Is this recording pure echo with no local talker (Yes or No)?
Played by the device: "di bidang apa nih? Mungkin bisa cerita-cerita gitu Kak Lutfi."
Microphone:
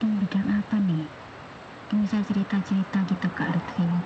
Yes